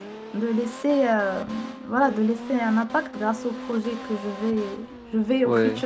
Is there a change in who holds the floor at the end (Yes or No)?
No